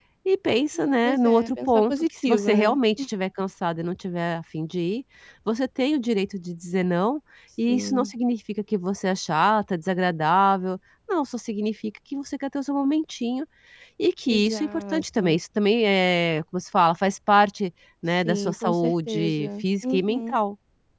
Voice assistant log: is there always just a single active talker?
No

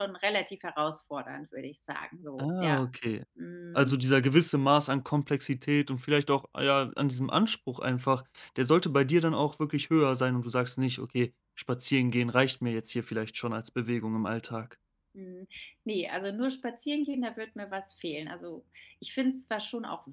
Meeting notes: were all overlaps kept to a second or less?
Yes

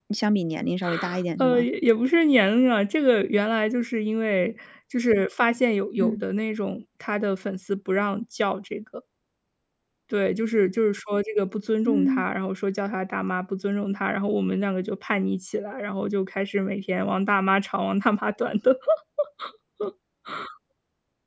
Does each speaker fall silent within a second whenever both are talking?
Yes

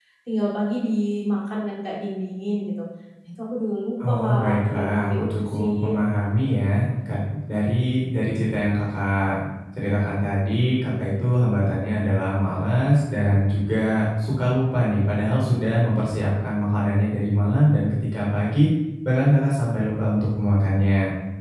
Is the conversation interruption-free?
No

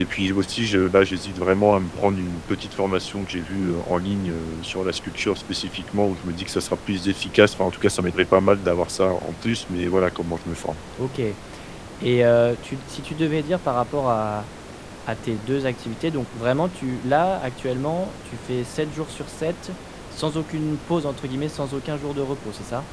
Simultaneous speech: No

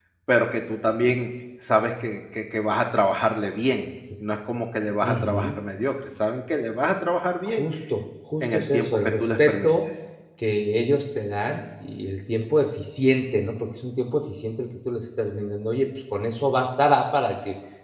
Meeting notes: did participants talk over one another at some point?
Yes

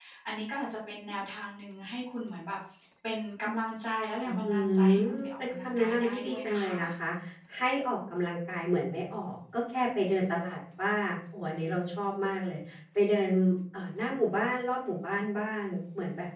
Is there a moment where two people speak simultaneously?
Yes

